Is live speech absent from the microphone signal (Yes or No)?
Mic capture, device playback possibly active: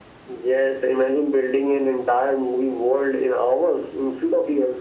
Yes